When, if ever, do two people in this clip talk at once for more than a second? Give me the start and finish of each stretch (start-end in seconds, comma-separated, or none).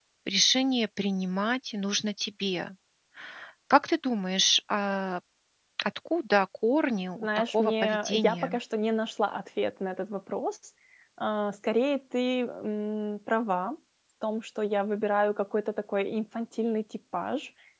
7.2-8.6